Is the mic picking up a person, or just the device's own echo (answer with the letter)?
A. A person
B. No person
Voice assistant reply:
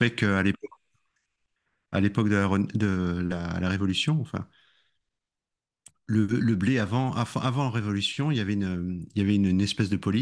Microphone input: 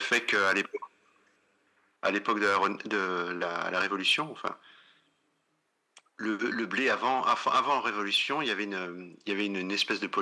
B